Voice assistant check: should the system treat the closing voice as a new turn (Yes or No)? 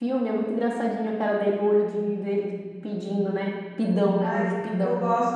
Yes